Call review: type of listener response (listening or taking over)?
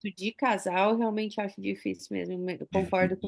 taking over